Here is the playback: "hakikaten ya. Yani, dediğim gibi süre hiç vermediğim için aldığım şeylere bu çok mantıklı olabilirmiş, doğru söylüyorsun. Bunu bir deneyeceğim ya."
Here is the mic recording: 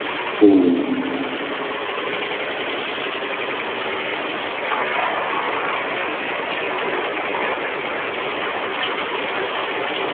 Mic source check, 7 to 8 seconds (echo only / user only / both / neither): neither